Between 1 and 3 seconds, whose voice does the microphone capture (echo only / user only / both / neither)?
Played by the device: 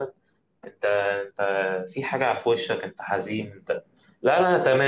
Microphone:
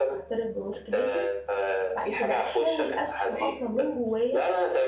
both